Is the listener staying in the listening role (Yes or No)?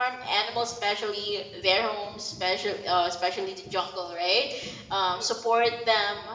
Yes